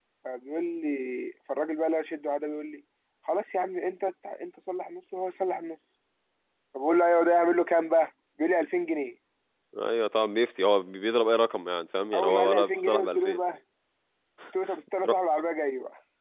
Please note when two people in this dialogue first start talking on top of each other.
12 s

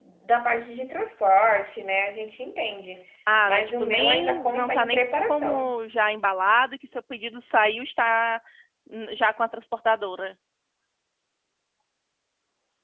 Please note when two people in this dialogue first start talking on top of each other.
3 s

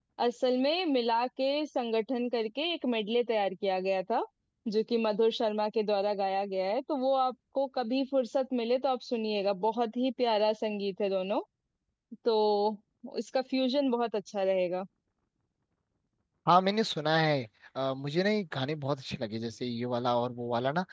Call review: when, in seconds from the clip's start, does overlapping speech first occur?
none

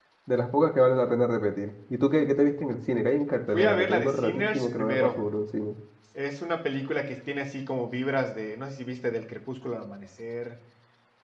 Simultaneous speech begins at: 4 s

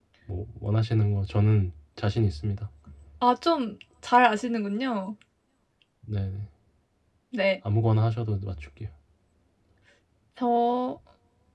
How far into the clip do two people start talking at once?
none

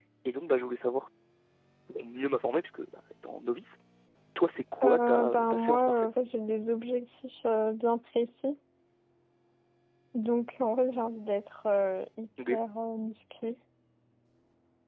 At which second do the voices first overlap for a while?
5 s

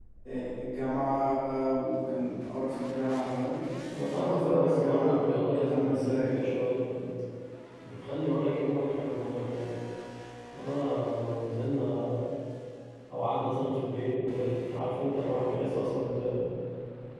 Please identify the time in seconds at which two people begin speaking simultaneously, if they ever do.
4 s

